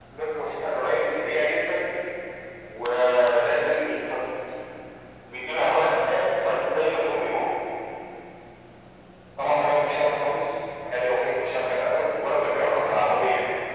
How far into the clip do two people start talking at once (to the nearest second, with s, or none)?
none